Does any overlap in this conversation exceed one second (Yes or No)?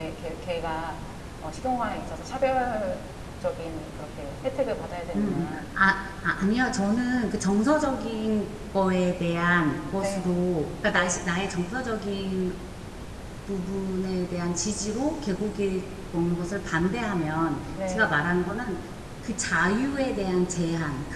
No